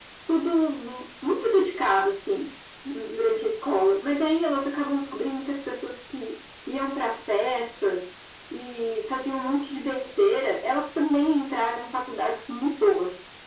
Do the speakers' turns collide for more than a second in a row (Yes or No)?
No